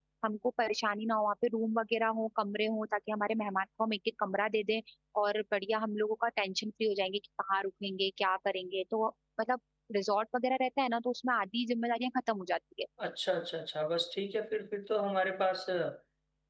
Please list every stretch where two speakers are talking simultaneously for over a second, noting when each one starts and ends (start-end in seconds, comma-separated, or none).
none